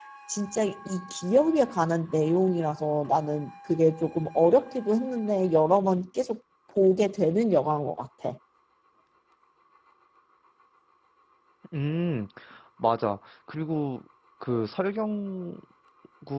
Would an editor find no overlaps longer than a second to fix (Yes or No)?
Yes